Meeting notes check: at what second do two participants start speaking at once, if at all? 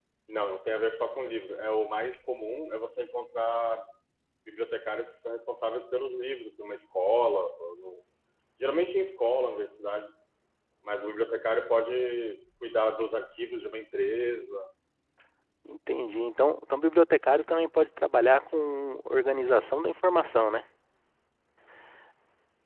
none

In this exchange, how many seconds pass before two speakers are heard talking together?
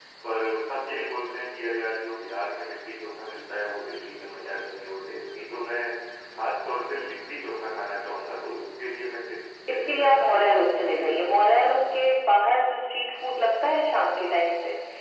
9.7 s

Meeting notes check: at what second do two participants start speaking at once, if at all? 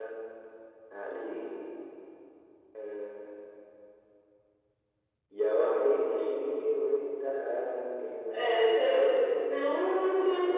8.3 s

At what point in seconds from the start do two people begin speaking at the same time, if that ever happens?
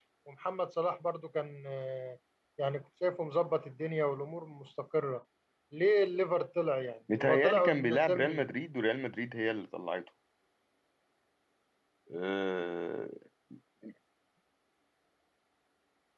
7.1 s

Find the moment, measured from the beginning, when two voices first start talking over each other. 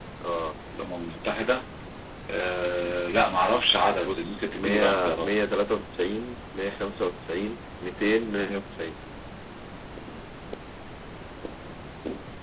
4.0 s

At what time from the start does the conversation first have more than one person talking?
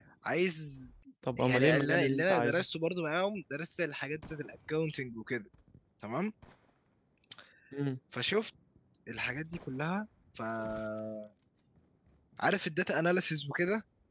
1.4 s

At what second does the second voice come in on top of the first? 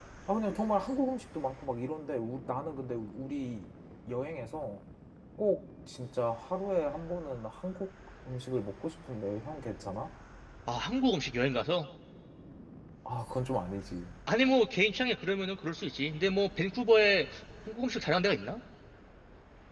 none

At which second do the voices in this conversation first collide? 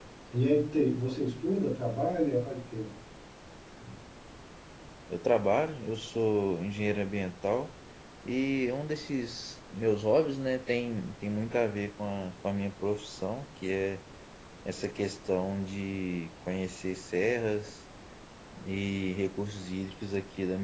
none

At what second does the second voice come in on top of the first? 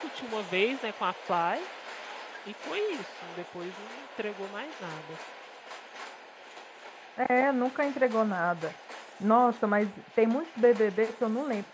none

